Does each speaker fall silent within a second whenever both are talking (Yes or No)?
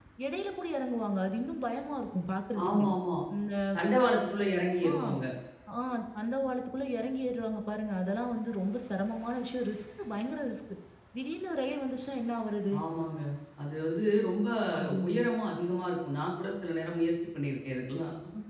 Yes